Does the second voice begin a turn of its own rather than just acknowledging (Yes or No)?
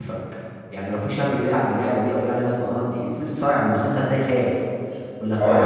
Yes